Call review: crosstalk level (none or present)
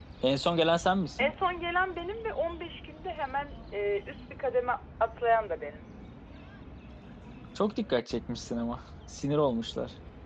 none